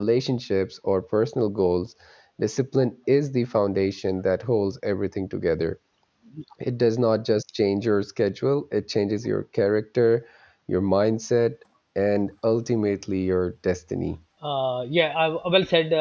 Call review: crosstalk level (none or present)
none